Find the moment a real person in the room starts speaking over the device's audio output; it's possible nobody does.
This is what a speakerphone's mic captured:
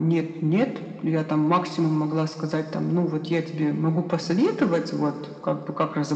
none

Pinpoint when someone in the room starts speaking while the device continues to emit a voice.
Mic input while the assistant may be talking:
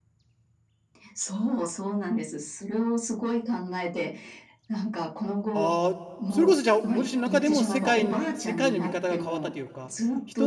5.5 s

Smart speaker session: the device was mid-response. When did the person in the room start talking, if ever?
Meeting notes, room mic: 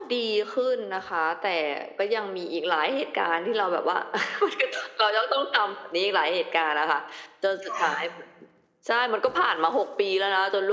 7.6 s

